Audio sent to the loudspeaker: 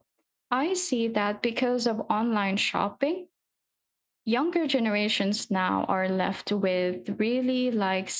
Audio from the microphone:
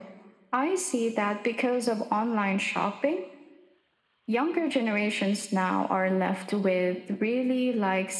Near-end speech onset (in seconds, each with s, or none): none